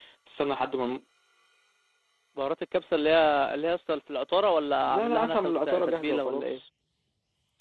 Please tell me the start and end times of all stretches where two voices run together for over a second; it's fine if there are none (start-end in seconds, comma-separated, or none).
4.8-6.6